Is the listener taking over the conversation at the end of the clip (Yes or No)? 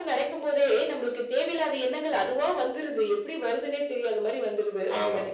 Yes